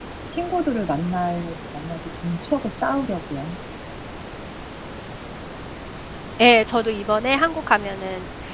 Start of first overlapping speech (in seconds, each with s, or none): none